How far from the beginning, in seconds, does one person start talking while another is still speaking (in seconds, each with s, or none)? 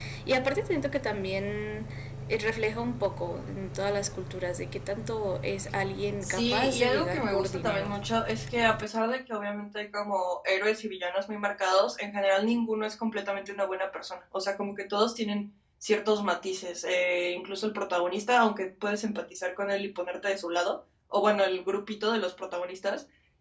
6.2 s